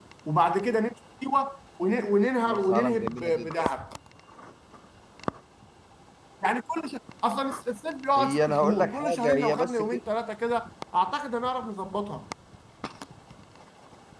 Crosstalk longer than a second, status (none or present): present